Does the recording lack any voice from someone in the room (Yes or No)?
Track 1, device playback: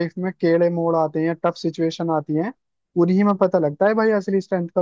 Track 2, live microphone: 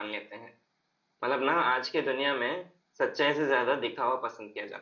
No